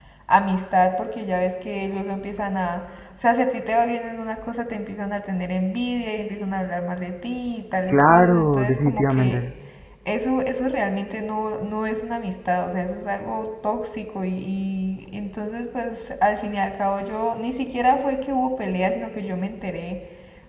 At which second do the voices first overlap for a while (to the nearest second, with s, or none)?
8 s